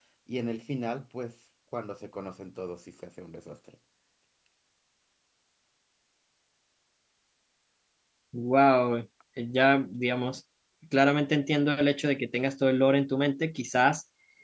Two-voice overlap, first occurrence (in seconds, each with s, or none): none